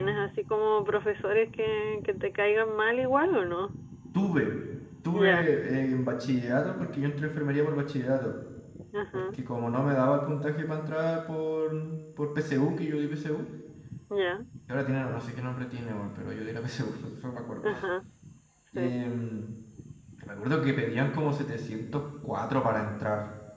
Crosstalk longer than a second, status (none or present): none